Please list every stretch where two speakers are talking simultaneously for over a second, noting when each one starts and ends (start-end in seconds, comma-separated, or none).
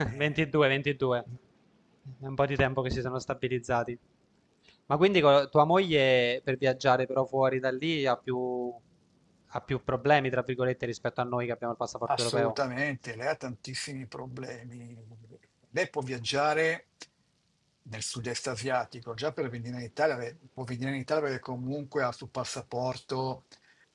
none